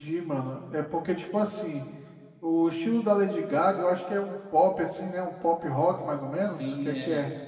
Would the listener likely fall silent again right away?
No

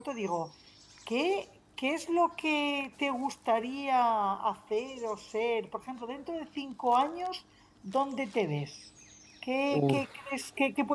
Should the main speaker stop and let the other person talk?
No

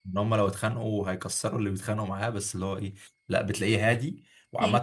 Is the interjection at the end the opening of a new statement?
No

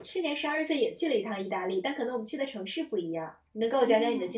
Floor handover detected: Yes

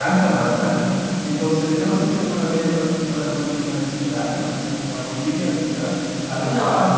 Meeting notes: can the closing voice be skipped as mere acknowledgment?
No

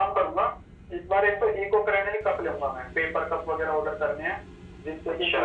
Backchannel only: Yes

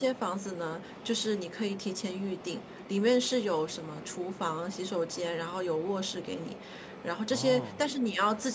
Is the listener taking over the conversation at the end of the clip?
No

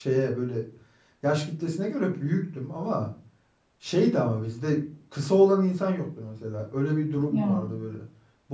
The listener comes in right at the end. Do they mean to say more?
No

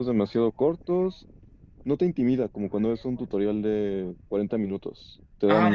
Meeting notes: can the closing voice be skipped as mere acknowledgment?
No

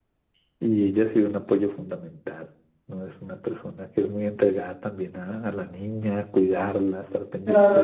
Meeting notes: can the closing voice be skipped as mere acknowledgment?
No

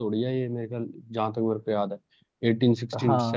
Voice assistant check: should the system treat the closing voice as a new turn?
Yes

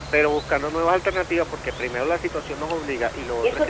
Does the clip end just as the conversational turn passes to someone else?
Yes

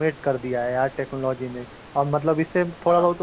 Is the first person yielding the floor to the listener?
No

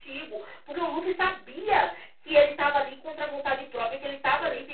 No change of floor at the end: Yes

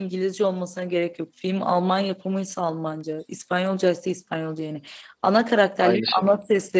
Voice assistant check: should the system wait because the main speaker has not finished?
Yes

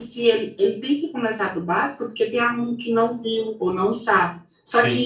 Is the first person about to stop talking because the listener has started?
No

